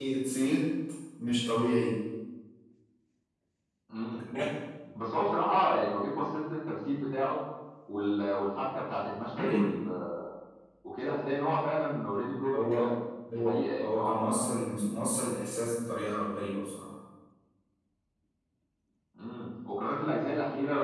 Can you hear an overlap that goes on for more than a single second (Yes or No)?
Yes